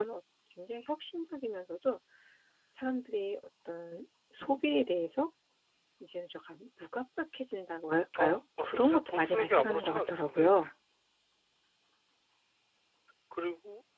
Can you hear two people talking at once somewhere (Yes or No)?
Yes